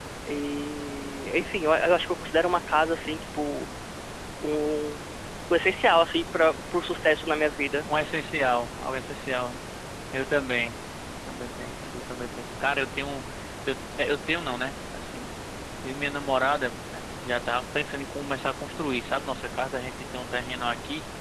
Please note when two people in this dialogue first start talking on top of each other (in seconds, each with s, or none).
none